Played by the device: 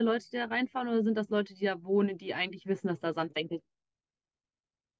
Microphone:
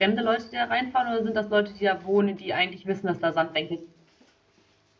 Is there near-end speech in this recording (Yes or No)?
No